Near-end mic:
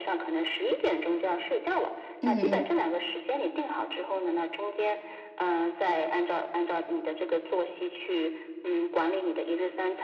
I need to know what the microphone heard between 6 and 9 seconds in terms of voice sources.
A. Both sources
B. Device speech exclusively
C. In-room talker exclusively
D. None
B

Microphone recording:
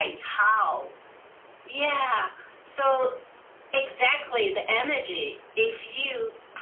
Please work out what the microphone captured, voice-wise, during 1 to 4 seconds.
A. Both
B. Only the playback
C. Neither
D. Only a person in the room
B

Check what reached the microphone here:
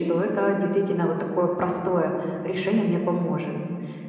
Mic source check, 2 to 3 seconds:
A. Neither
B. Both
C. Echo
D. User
C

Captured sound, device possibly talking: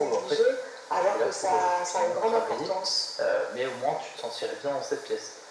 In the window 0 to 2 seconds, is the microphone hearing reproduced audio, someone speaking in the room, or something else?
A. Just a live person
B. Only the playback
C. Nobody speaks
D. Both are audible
B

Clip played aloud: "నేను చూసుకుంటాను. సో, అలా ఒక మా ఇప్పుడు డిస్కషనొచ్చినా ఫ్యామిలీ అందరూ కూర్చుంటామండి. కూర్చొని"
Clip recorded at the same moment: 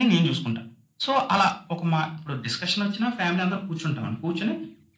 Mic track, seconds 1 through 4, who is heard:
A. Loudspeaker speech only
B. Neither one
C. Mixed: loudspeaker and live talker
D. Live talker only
A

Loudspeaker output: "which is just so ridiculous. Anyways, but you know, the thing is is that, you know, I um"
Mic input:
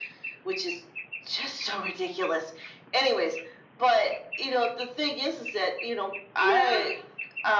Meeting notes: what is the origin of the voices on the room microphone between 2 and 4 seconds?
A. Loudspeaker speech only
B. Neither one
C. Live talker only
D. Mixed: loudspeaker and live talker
A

